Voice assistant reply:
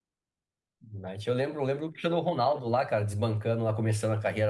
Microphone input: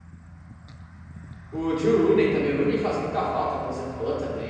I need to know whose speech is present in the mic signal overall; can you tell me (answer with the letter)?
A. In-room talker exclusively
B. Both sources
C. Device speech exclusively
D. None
A